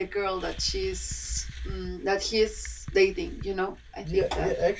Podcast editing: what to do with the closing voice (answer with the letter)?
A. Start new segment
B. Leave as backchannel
A